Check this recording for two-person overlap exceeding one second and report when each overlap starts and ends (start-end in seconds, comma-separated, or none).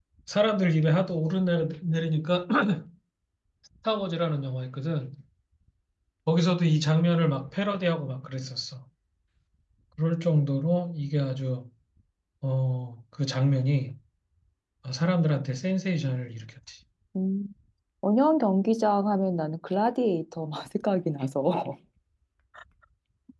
none